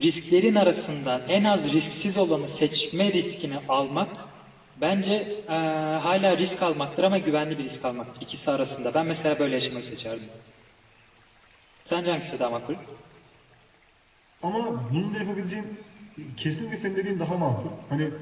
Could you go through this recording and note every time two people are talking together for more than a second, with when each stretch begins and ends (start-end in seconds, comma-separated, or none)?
none